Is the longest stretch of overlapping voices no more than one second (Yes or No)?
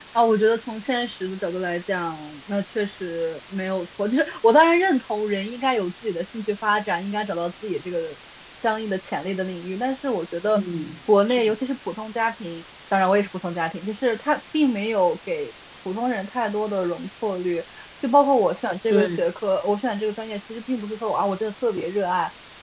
Yes